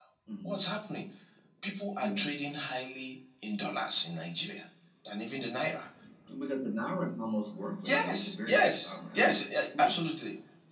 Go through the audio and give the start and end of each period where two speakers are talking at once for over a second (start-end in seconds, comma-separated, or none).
7.8-9.4